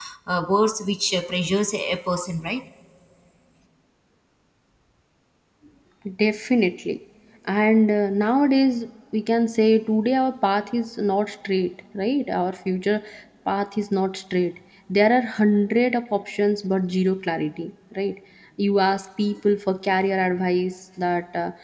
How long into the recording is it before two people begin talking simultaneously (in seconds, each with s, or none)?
none